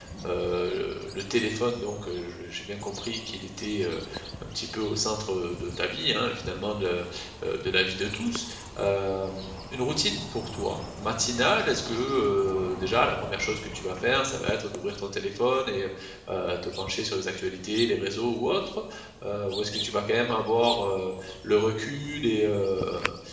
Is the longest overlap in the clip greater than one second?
No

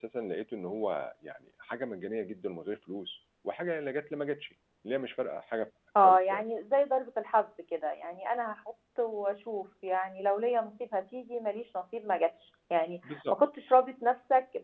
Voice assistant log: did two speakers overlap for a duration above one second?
No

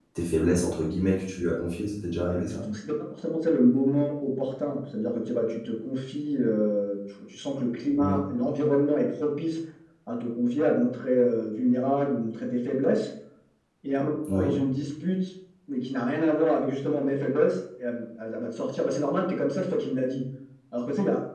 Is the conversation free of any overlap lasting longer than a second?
Yes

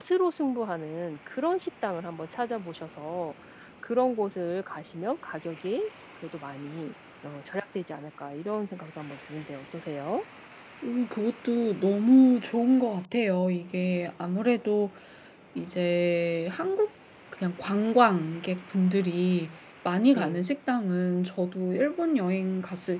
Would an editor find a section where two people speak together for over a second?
No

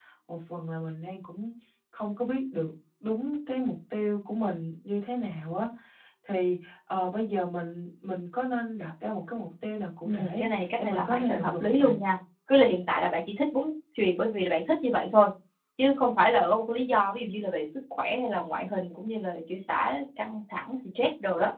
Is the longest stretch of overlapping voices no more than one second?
No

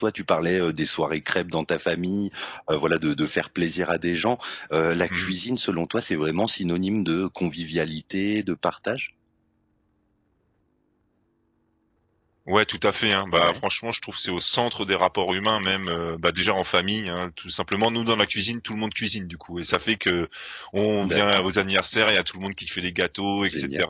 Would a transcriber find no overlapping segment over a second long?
Yes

